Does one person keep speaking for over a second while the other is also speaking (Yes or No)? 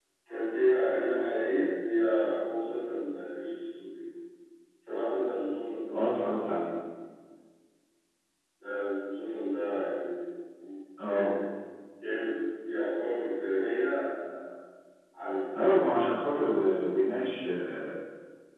No